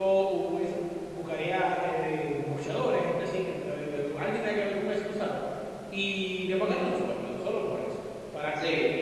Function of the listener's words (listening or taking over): listening